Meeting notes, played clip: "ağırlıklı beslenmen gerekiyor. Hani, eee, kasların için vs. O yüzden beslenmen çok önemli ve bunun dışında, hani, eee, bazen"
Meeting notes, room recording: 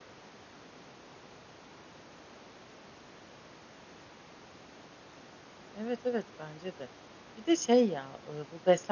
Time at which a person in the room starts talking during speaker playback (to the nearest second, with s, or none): 6 s